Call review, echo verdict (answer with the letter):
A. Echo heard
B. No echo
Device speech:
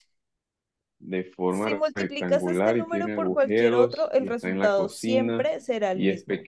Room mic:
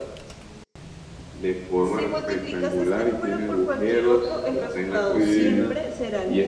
A